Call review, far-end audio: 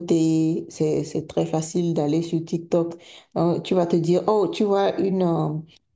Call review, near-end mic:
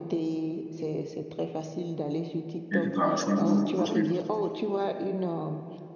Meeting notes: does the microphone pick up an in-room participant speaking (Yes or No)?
Yes